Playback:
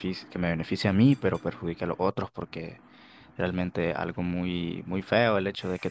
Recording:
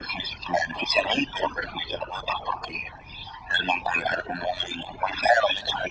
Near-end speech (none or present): none